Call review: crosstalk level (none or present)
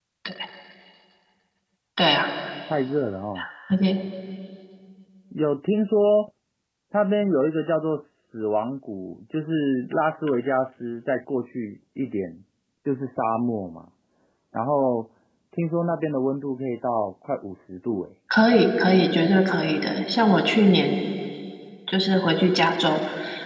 none